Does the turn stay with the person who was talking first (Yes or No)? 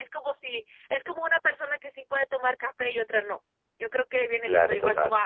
Yes